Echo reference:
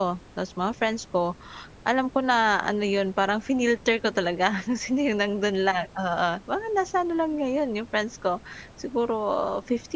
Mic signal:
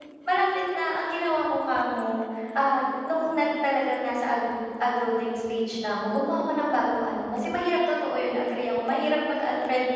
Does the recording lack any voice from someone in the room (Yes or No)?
No